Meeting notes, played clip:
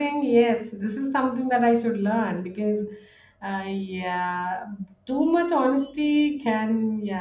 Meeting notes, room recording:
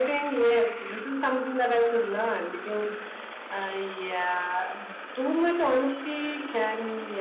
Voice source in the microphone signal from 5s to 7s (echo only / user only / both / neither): echo only